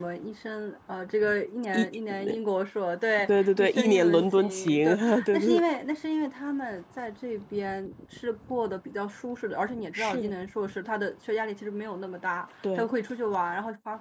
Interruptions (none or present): present